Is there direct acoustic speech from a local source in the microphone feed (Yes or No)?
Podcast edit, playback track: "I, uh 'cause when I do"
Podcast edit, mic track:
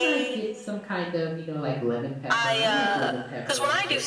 Yes